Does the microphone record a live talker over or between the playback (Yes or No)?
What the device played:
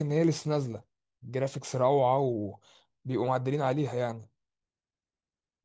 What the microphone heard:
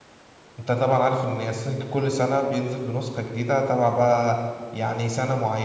Yes